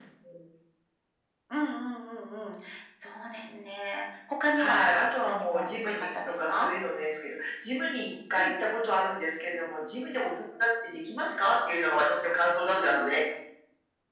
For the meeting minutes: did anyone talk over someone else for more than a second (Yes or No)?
Yes